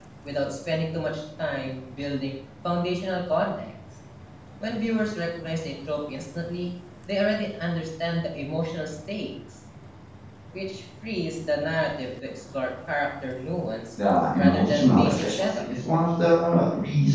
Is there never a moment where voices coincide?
No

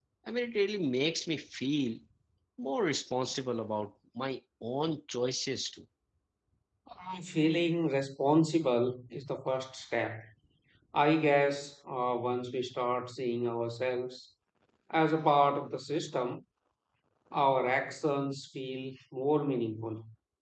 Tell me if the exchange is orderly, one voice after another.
Yes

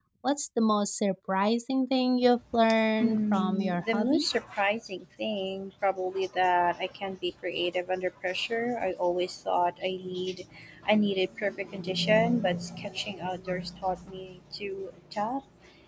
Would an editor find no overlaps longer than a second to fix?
No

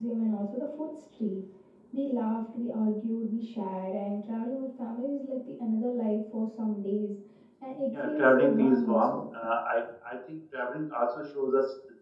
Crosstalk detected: Yes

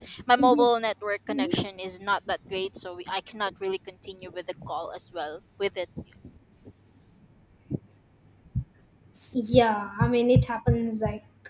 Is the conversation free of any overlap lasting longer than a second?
Yes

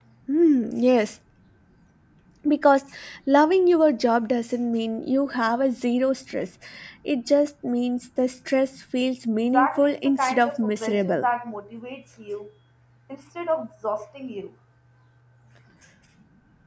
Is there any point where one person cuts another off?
Yes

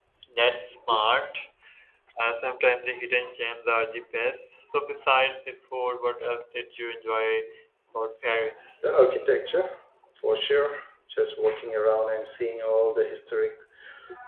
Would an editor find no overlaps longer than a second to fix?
Yes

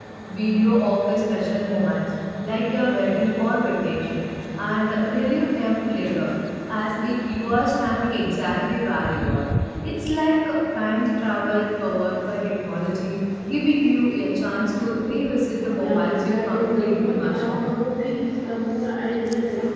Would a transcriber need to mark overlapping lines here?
Yes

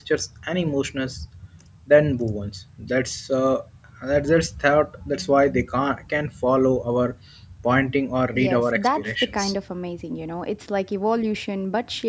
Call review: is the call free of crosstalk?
No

